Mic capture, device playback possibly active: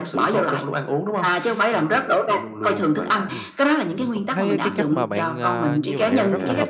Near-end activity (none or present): present